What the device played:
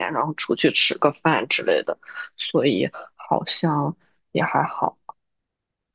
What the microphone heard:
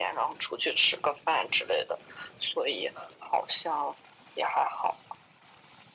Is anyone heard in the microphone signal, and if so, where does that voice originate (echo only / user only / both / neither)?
echo only